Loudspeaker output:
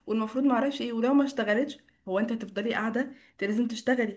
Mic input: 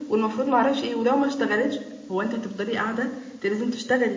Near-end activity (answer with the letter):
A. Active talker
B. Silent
B